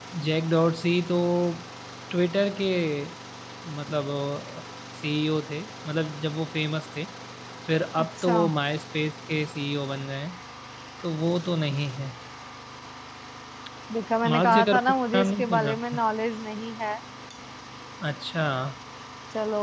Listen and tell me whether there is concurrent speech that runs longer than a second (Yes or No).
Yes